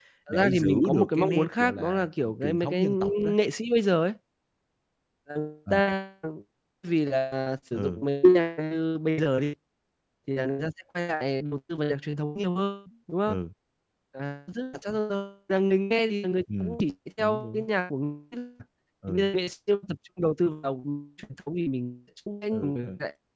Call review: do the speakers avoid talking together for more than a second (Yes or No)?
No